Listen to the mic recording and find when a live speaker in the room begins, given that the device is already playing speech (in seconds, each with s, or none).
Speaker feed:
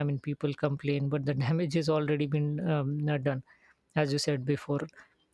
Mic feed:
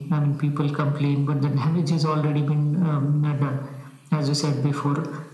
none